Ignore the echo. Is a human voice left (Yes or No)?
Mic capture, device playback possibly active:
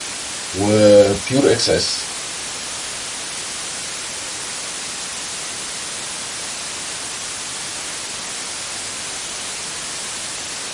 Yes